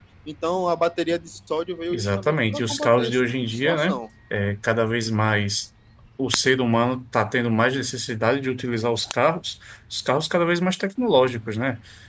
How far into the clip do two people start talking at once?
2 s

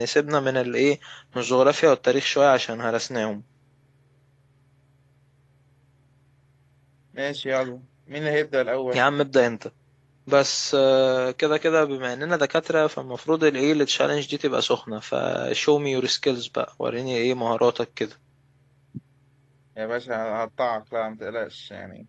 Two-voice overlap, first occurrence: none

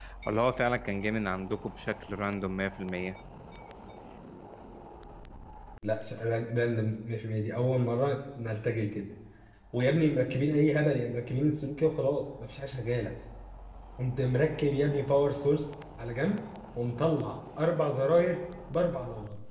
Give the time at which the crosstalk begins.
none

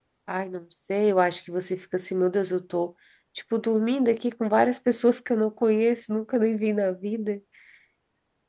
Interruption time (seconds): none

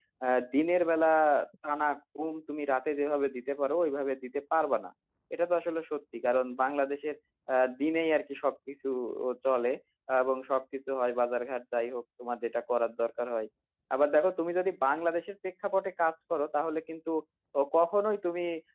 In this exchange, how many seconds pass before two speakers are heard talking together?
none

